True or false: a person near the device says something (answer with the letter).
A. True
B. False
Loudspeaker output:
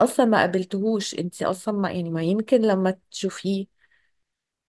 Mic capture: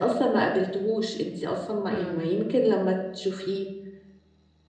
A